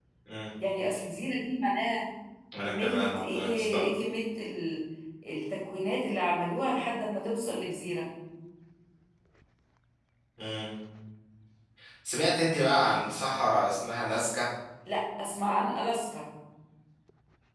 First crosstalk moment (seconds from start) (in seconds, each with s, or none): 2.6 s